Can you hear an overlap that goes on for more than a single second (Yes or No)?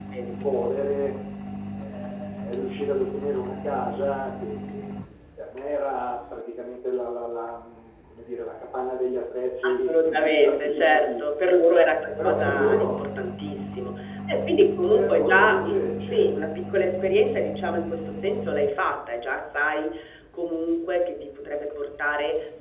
Yes